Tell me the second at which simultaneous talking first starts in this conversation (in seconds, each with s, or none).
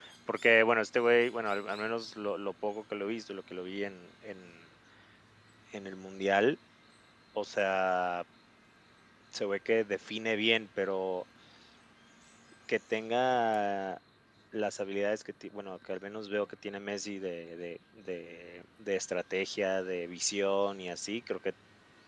none